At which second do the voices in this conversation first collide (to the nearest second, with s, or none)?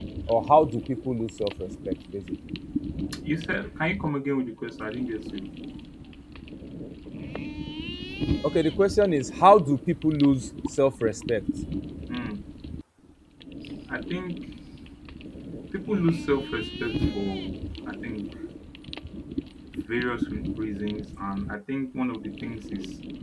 none